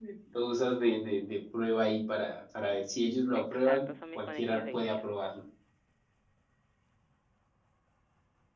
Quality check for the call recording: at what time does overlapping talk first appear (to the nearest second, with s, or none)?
3 s